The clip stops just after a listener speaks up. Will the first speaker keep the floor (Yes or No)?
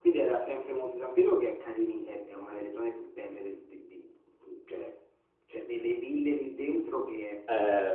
No